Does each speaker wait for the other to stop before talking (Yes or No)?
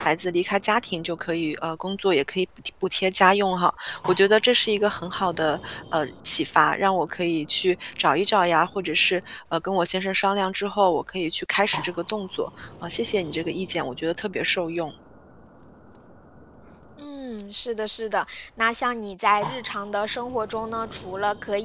Yes